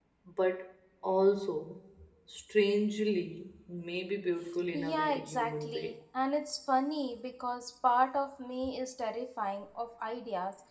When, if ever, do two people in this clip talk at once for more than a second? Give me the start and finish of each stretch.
4.7-6.0

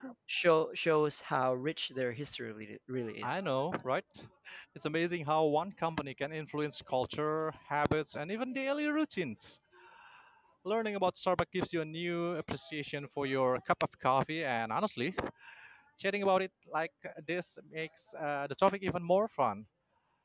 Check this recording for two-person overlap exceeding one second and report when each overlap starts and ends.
none

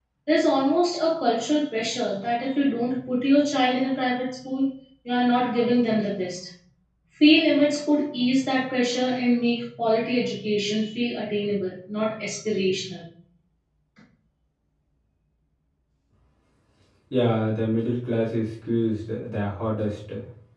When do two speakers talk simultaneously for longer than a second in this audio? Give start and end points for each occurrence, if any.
none

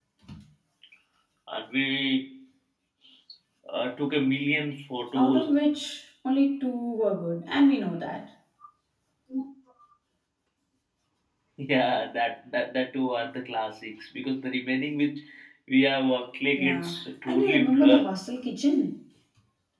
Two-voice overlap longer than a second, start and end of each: 16.5-18.1

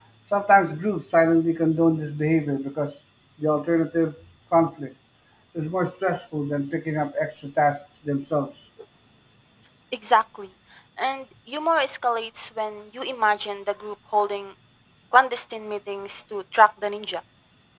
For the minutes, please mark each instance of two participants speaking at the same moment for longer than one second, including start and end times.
none

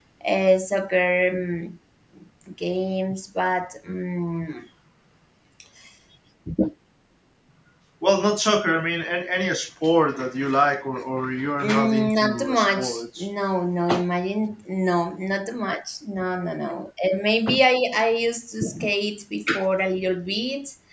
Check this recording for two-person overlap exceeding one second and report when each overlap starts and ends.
11.6-13.3

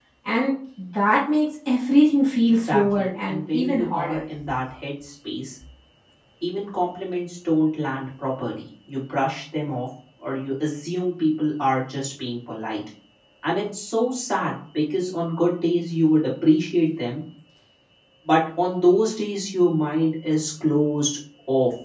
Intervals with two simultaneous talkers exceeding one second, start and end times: 2.6-4.2

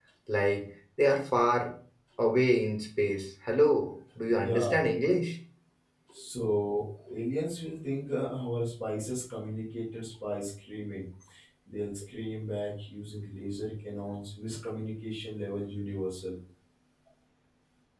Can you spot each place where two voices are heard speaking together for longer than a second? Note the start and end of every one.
none

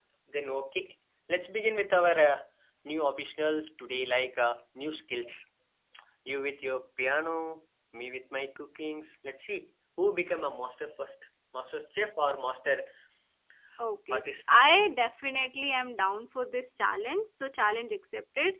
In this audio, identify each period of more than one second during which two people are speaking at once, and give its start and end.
none

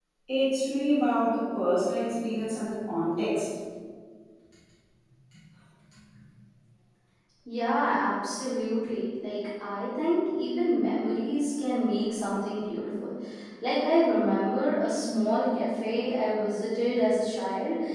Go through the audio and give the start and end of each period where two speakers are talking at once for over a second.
none

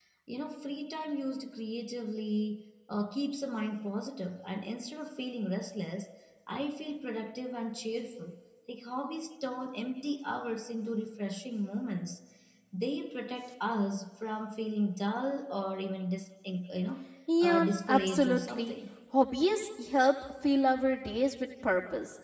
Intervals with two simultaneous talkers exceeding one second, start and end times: 17.4-18.7

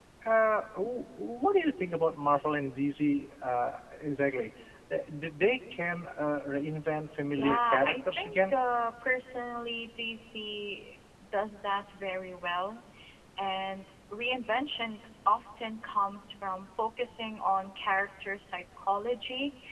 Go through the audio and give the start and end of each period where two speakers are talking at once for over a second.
7.3-8.6

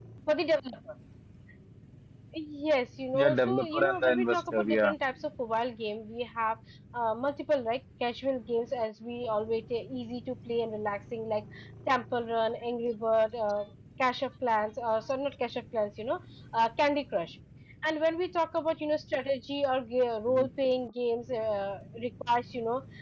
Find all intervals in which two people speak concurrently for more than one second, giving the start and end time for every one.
3.1-4.9

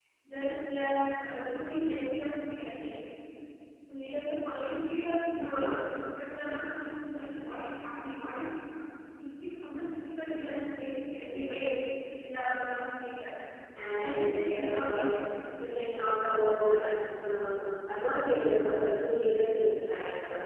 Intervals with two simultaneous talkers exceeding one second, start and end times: 14.0-15.2

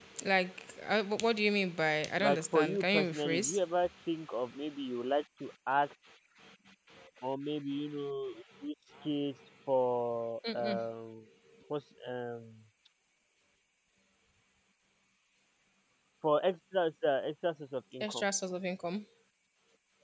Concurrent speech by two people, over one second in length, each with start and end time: 2.2-3.6

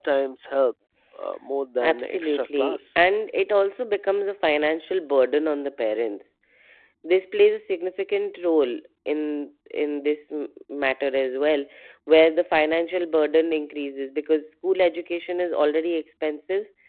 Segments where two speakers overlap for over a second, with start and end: 1.8-3.1

